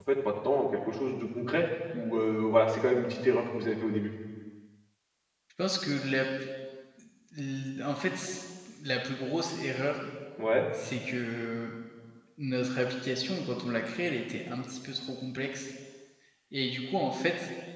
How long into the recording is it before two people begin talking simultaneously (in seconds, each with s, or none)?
none